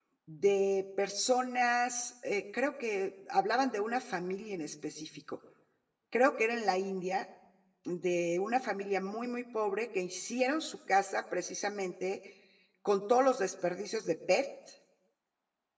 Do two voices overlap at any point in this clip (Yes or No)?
No